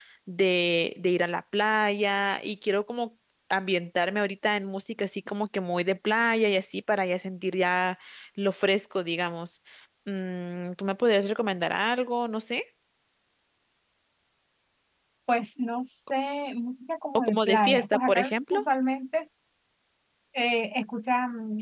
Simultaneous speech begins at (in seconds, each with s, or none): 17.2 s